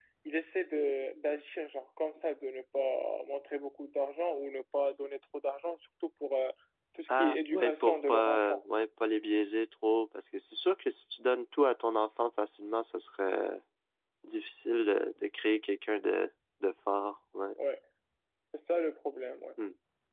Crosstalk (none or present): present